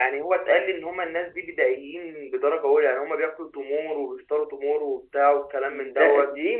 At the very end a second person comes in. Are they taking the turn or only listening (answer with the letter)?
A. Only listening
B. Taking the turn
B